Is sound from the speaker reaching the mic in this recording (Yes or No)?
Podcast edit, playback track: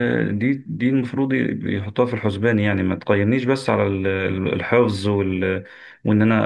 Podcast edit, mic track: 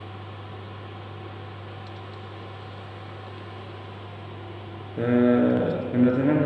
No